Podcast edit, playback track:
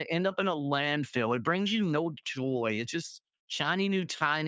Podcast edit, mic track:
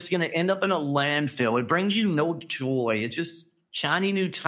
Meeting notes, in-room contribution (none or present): none